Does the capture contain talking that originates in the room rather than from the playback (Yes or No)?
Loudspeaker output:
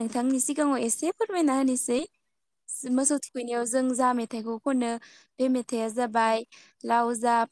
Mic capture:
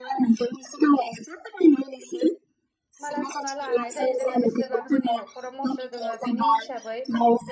Yes